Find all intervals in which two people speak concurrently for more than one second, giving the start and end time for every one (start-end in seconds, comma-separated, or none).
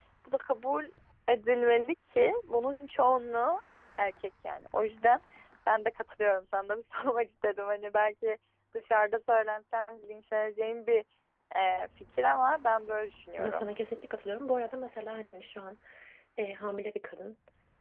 none